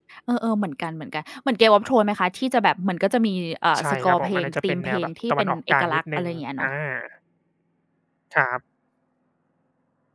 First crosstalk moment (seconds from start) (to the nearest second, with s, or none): 4 s